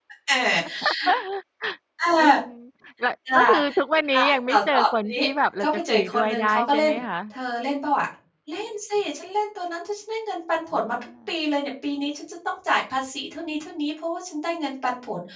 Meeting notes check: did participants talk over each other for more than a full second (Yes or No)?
Yes